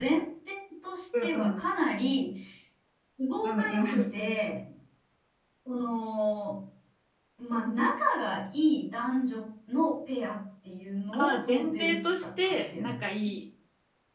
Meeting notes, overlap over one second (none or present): present